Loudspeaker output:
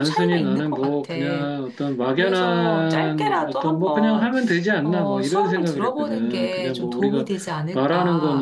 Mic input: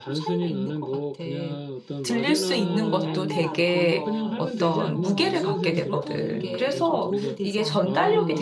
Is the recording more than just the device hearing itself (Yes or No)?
Yes